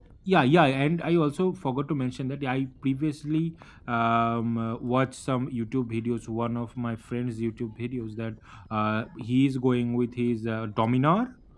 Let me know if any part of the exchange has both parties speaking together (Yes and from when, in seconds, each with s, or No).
No